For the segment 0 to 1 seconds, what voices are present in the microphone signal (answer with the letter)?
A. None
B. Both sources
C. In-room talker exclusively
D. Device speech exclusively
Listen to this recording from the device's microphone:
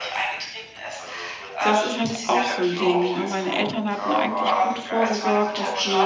D